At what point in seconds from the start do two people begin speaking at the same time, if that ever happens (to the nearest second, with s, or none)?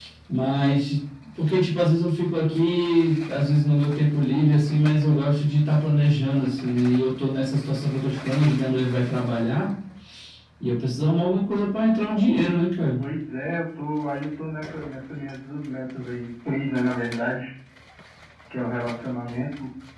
none